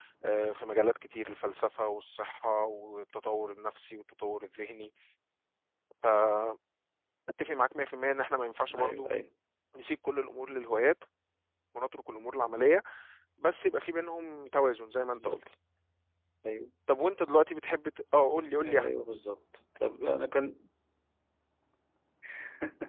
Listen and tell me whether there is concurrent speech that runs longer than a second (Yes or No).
No